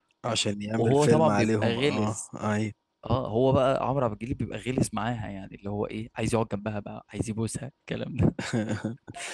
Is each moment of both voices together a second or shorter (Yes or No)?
No